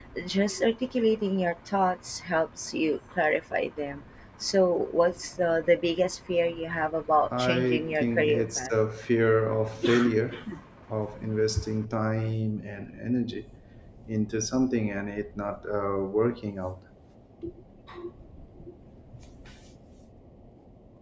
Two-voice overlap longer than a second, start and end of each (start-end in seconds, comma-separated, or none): 7.4-8.7